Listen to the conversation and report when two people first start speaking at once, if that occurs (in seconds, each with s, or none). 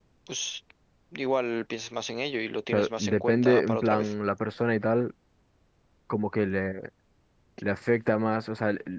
2.7 s